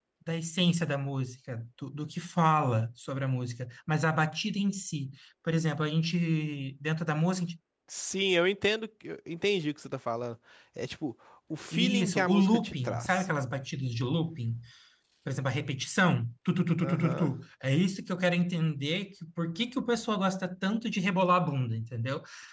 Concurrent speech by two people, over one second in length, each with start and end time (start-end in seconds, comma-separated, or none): 11.7-13.3